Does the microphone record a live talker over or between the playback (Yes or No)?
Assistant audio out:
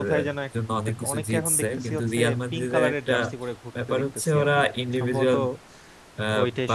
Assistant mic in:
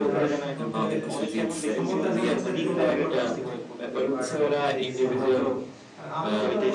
Yes